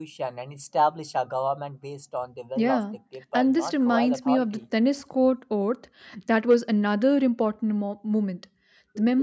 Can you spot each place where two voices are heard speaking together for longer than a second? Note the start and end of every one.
3.3-4.6

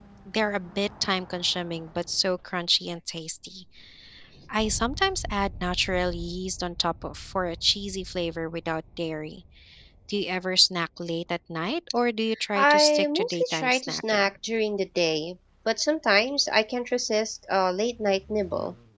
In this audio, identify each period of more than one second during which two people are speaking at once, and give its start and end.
12.6-14.3

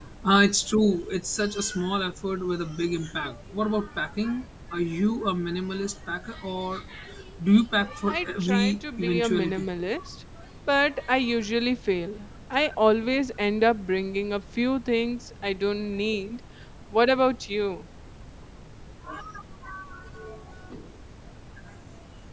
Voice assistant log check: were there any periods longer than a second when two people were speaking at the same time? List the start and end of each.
8.1-9.6

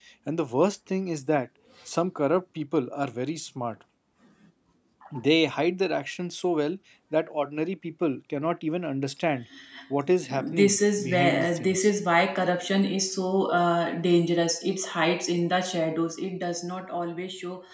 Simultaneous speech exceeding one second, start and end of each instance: 10.2-11.9

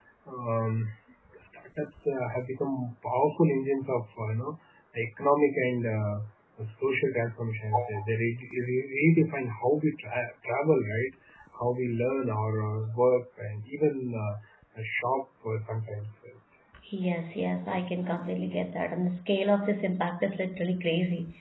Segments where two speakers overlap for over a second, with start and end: none

